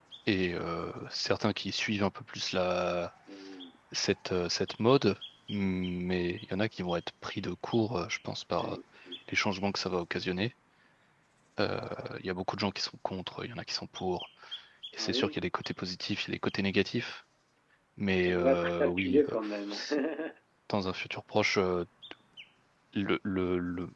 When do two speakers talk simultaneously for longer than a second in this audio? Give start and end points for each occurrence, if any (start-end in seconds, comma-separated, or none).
18.2-19.8